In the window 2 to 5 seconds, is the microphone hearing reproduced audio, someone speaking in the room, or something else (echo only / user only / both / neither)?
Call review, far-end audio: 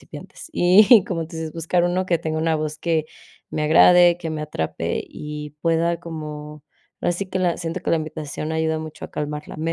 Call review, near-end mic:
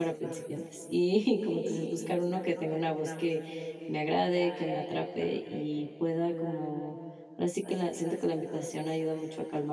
echo only